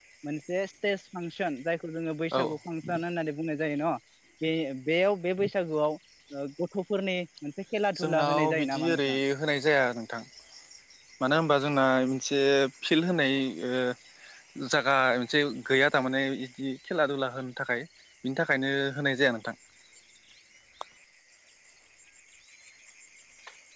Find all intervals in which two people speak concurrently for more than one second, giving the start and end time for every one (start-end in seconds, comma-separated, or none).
8.0-9.2